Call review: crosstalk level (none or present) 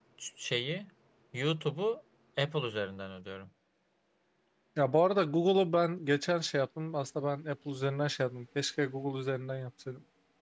none